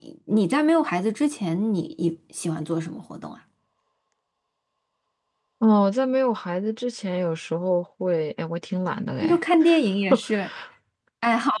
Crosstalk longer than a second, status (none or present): none